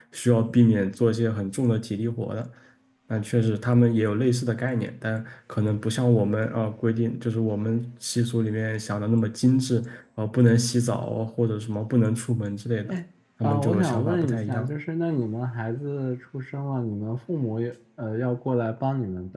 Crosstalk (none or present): present